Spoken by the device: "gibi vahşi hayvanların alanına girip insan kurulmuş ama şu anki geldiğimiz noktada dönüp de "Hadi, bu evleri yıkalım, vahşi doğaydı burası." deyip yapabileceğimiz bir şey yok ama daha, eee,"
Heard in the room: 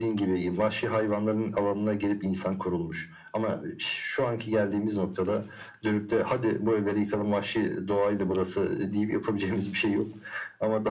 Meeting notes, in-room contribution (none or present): none